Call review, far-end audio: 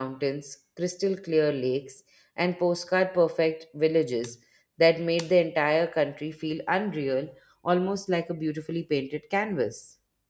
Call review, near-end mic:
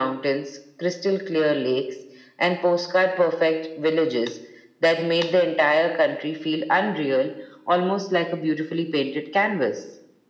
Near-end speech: none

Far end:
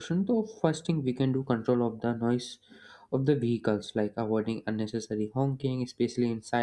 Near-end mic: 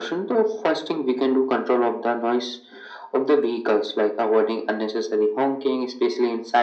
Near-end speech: none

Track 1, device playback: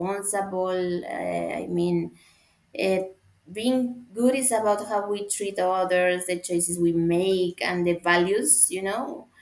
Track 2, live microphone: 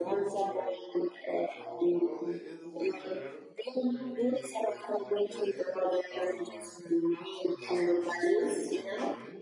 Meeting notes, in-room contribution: present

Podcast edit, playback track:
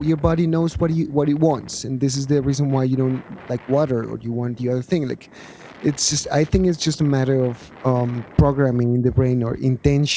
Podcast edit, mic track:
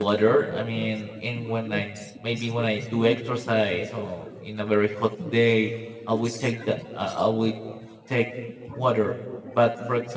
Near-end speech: present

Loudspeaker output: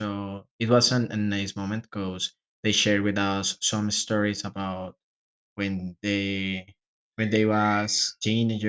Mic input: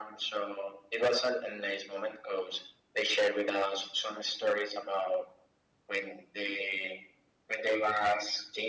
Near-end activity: none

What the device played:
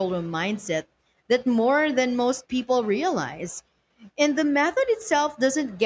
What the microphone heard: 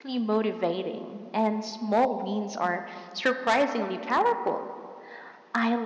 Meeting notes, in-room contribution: present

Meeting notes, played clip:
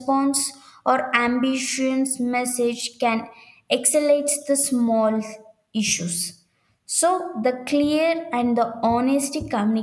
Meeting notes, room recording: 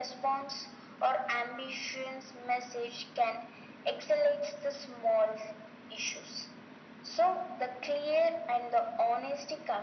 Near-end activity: none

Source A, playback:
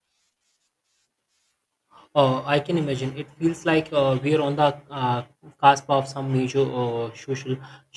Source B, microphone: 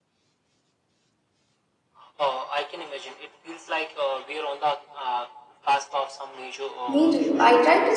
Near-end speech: present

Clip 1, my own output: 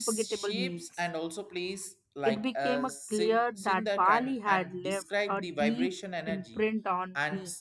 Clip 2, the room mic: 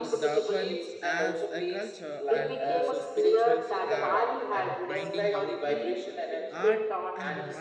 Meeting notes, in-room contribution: present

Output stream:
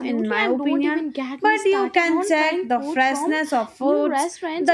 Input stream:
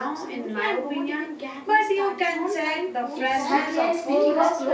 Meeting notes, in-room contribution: present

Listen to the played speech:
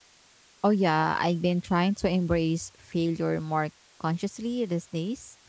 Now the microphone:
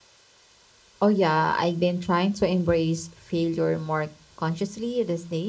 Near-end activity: none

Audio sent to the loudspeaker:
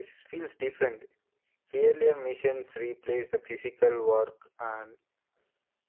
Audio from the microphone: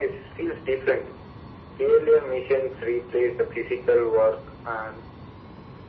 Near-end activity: none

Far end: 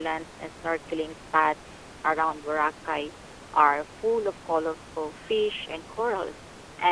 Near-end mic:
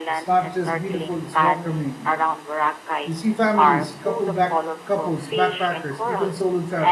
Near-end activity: present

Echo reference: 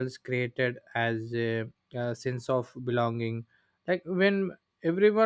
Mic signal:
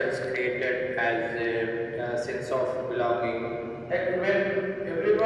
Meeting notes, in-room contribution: none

